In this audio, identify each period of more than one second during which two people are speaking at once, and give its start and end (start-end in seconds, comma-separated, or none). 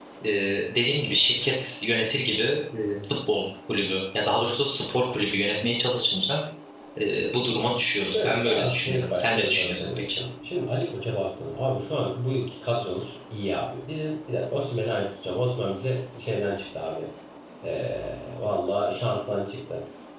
8.0-10.2